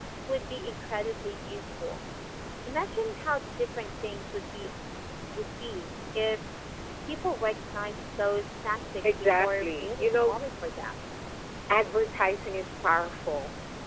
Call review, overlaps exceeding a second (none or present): present